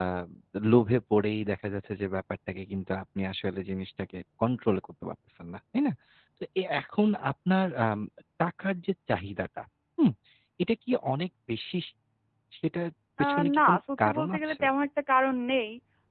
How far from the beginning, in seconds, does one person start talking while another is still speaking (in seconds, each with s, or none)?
13.2 s